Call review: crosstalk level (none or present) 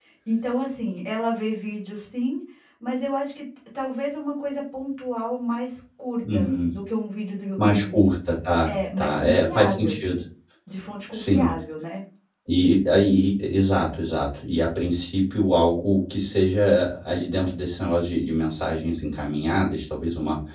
present